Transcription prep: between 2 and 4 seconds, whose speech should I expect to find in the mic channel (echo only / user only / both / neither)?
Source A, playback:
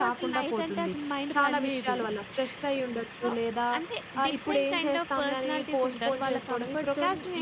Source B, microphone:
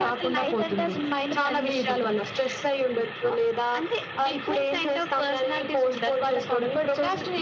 echo only